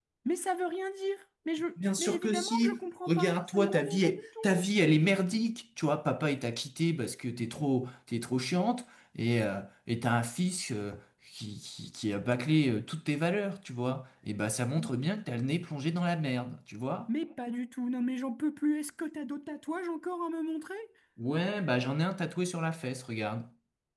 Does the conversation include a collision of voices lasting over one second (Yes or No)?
Yes